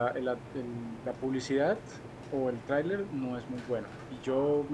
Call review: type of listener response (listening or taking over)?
listening